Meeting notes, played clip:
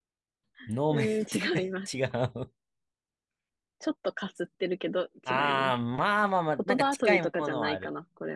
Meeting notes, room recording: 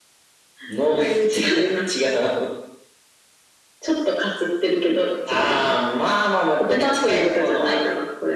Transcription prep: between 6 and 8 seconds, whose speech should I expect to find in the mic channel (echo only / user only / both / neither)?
echo only